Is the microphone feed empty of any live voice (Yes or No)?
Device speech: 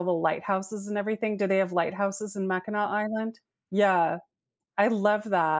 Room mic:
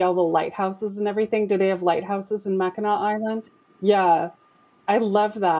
Yes